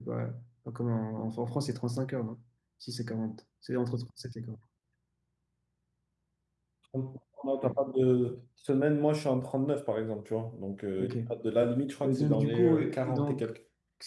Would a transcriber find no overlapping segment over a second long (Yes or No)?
No